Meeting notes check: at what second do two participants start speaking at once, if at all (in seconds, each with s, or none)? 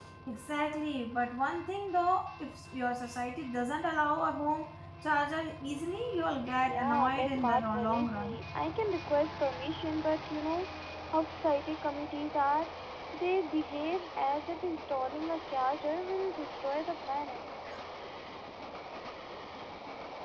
6.7 s